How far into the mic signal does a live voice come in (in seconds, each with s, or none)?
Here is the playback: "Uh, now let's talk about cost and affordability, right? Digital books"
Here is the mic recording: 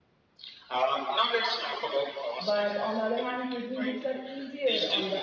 2.4 s